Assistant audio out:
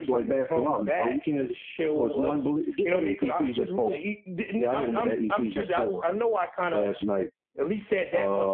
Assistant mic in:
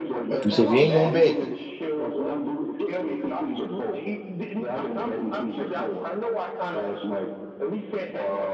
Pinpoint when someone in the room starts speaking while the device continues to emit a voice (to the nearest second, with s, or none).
0 s